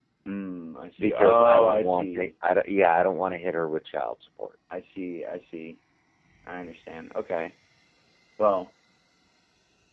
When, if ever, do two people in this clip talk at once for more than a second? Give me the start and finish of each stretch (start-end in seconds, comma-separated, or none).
1.0-2.3